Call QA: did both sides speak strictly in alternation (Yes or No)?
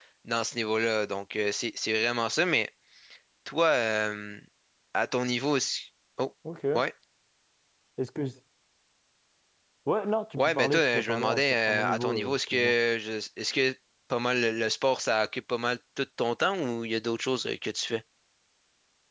No